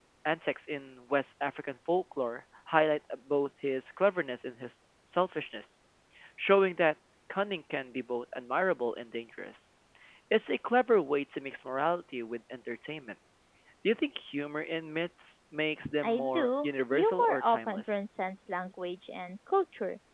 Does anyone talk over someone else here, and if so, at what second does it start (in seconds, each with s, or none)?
16.0 s